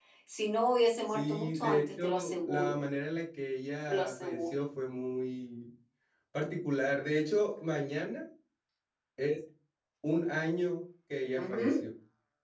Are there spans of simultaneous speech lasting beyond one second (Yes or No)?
Yes